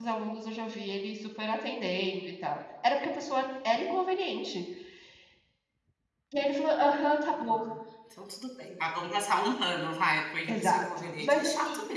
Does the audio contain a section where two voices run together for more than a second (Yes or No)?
Yes